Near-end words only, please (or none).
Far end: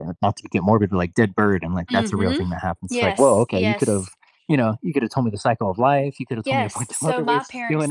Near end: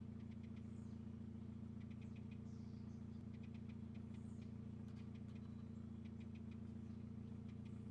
none